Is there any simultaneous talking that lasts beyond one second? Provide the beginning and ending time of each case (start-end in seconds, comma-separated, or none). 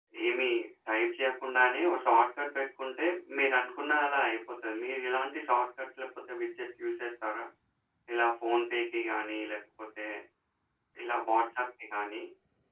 none